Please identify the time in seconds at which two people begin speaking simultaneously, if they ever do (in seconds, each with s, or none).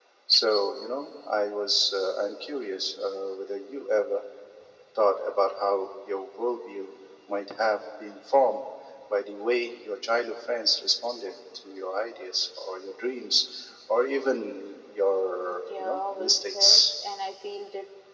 15.7 s